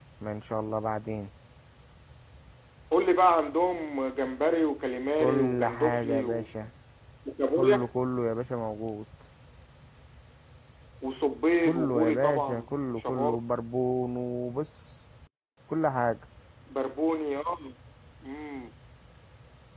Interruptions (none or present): present